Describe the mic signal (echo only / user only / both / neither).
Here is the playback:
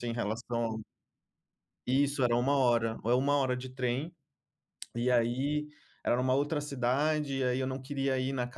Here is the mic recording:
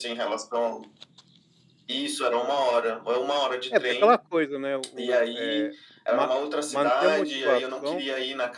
both